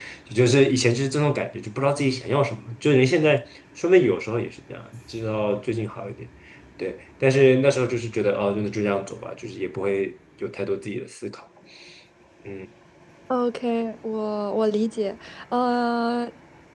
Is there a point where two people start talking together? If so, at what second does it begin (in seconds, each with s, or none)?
none